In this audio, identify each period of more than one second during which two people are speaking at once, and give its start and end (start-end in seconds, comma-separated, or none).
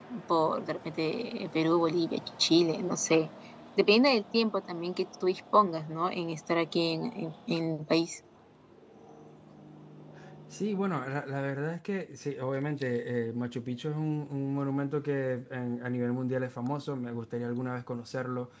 none